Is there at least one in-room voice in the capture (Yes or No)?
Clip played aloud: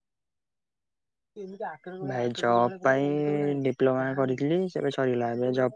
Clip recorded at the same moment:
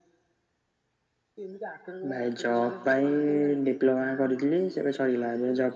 No